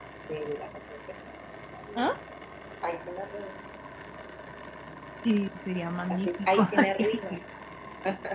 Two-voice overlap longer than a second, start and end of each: 6.1-7.3

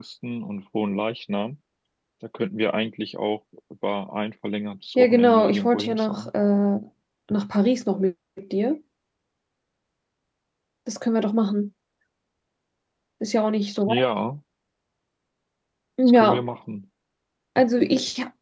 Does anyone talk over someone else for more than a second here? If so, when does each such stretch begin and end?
5.0-6.3

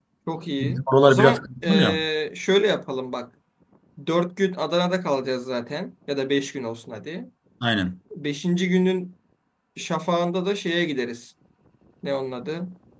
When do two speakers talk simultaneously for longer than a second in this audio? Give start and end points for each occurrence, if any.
0.6-2.0

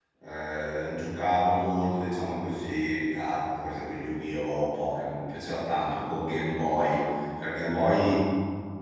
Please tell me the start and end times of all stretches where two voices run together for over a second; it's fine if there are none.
none

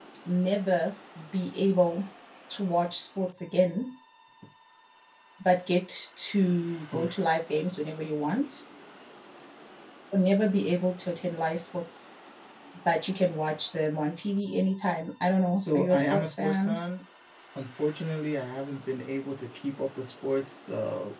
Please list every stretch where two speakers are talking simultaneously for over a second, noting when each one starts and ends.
15.6-16.8

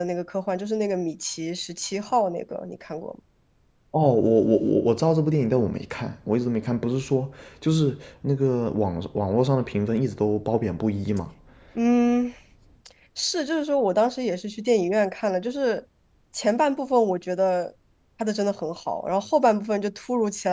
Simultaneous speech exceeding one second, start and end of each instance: none

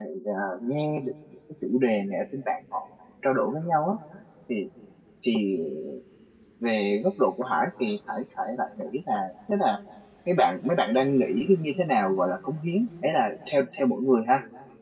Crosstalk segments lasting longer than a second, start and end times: none

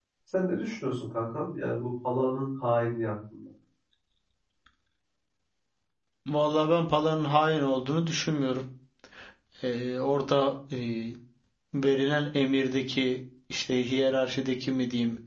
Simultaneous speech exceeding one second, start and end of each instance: none

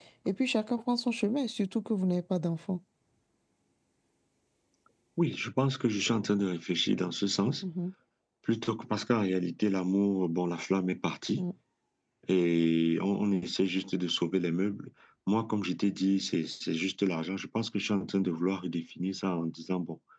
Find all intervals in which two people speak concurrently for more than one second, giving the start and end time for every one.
none

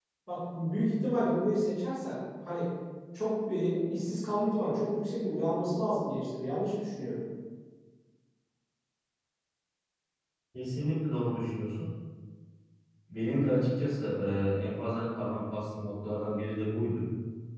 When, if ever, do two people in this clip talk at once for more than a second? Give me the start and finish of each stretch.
none

